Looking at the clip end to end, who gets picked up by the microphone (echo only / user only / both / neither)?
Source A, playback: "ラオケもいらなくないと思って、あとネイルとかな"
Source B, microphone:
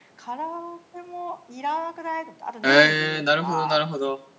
both